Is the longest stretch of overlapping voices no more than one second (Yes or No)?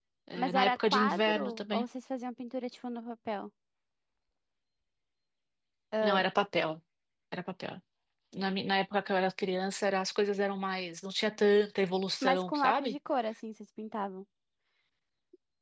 No